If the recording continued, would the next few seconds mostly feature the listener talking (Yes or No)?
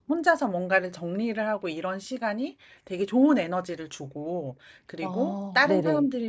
No